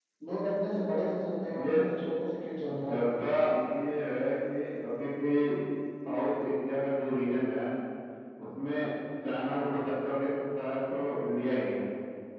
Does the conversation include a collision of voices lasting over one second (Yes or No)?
No